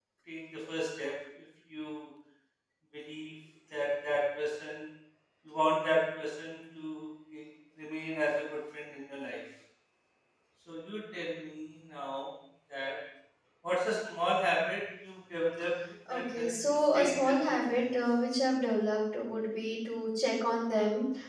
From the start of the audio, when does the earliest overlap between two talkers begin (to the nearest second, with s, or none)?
16 s